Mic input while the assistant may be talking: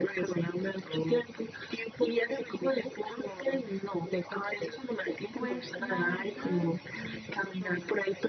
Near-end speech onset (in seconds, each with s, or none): 5.3 s